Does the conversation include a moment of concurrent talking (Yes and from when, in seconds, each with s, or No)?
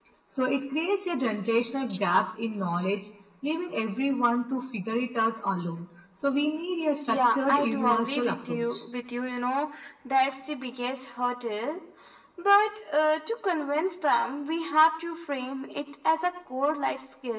Yes, from 7.1 s